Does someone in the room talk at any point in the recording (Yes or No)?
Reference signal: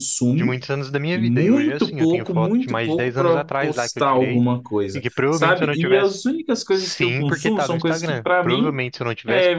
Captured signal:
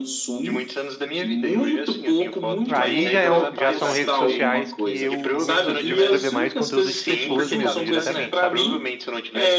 Yes